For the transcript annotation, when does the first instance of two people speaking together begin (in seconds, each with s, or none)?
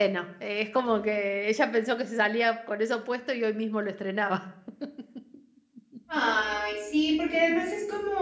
none